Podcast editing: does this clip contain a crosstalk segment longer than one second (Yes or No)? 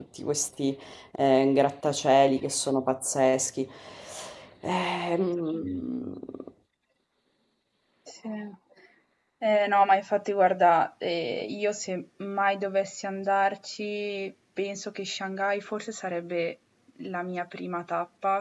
No